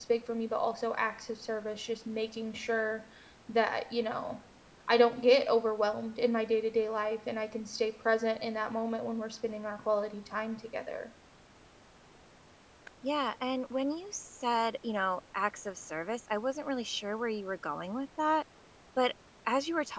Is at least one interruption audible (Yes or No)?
No